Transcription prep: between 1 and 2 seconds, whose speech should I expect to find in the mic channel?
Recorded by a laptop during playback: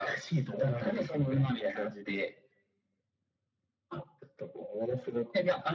echo only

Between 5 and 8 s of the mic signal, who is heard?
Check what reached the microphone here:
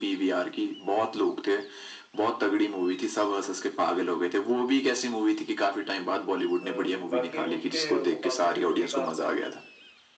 both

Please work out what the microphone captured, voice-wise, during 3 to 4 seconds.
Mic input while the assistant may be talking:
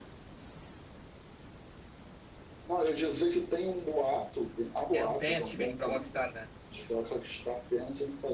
echo only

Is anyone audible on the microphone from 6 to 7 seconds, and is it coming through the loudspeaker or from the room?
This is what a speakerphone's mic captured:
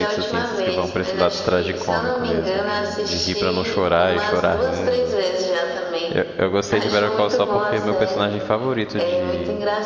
both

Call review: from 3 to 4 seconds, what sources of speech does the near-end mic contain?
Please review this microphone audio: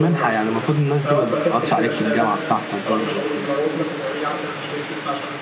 both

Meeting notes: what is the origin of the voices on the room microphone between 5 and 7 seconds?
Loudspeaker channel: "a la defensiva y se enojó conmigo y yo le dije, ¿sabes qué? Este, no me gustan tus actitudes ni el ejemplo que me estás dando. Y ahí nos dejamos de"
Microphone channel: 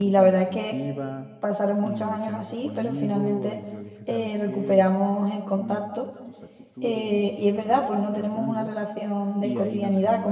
both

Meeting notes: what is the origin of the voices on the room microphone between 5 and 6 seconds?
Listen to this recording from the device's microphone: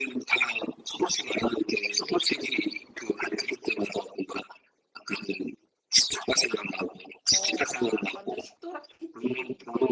echo only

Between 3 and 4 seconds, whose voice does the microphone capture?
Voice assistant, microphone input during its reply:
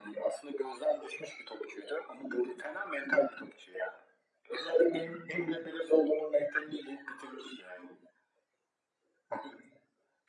echo only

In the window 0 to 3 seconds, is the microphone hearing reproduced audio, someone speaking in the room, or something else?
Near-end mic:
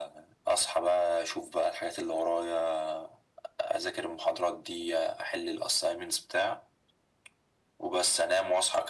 echo only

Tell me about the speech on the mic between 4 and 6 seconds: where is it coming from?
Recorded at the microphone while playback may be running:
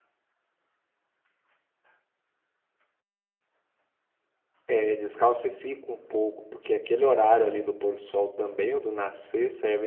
user only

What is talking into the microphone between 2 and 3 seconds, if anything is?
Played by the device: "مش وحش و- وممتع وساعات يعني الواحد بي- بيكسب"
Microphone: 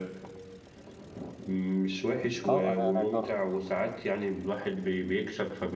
both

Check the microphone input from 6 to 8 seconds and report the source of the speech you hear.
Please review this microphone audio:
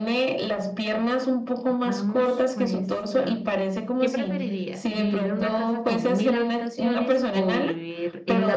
both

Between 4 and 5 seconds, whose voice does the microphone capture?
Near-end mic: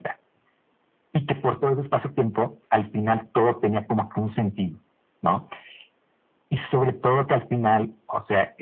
echo only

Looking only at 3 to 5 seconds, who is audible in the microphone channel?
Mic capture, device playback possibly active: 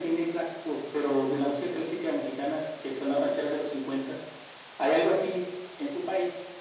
echo only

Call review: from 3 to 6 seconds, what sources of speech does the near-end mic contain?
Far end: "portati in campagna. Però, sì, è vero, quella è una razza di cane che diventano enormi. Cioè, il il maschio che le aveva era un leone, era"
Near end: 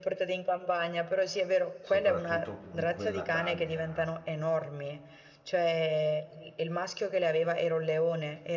both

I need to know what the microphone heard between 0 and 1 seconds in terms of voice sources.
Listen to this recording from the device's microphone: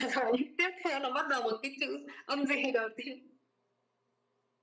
echo only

